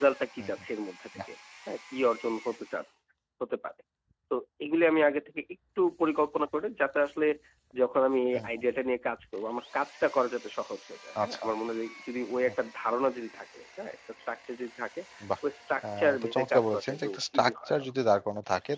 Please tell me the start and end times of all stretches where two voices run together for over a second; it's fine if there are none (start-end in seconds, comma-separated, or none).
16.0-17.9